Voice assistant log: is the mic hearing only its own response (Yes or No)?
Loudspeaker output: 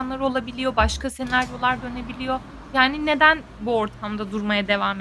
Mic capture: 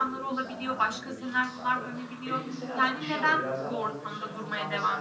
No